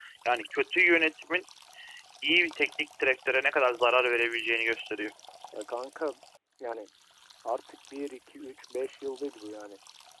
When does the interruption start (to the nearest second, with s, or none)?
none